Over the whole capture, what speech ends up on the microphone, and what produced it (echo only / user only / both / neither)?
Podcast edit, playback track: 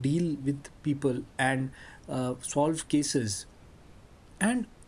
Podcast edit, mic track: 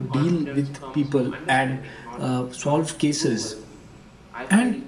both